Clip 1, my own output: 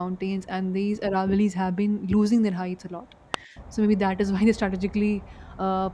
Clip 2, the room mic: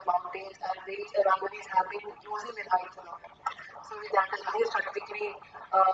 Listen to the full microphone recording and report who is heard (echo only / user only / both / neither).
echo only